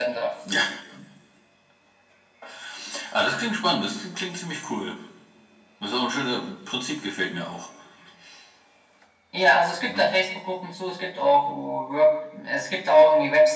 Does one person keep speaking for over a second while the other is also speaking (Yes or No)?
No